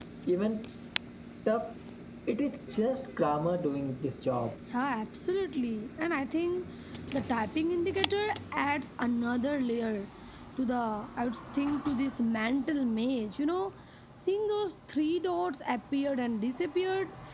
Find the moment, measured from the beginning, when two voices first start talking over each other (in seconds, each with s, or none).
none